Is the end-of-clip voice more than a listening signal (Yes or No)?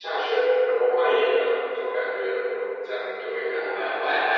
Yes